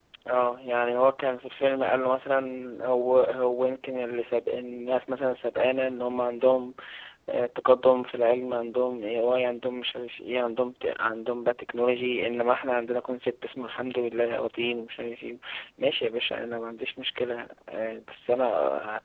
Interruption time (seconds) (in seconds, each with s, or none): none